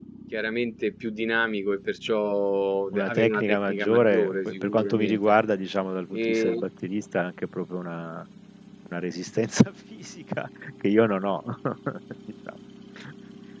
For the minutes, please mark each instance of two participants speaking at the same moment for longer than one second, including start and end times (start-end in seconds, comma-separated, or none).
2.9-5.2